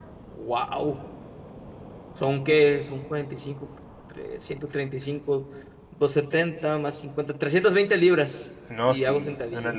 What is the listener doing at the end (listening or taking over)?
taking over